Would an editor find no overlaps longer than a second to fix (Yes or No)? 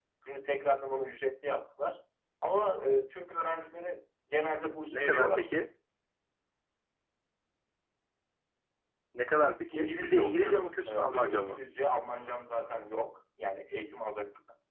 No